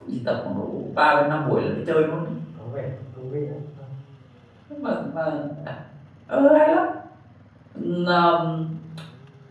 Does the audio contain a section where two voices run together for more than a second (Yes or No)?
No